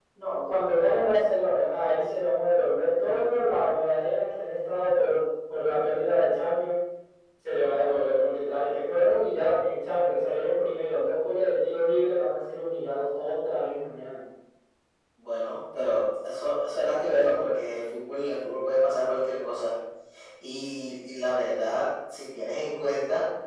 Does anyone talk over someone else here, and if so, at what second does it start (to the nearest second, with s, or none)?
none